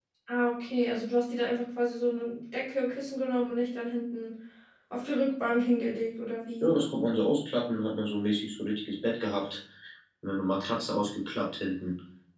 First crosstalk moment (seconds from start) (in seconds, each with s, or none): none